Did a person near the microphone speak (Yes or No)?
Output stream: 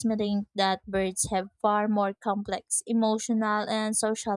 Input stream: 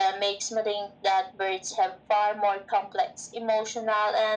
No